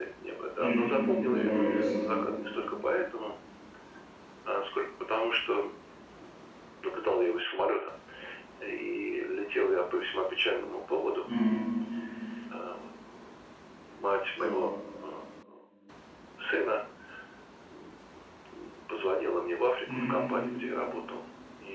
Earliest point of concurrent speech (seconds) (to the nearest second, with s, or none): 1 s